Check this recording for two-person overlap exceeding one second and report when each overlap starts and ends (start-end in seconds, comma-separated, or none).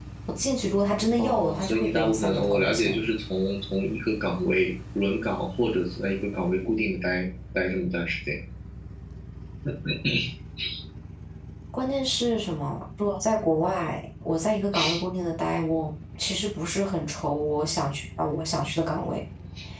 1.2-3.0